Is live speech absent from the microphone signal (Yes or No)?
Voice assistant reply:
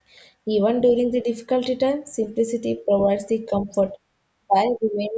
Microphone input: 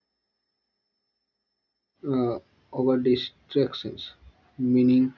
No